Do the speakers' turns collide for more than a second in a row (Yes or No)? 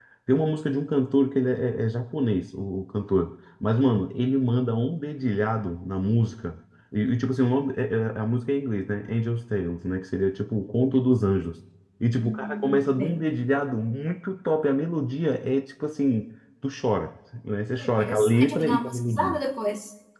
Yes